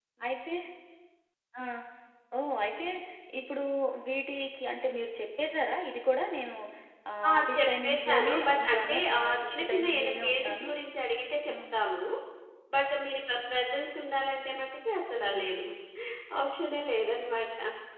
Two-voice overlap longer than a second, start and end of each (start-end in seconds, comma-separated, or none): 7.3-10.7